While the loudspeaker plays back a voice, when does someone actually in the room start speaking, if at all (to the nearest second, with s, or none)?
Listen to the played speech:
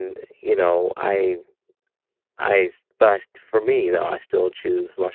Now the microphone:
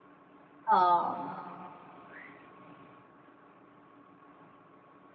1 s